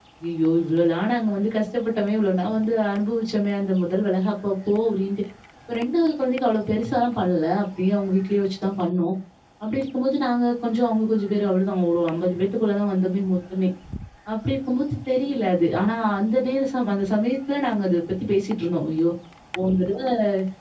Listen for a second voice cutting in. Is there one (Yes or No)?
No